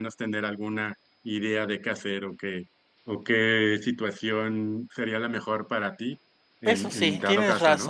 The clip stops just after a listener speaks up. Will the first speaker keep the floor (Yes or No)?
No